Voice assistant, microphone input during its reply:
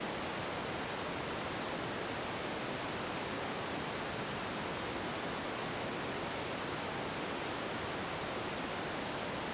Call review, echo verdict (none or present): none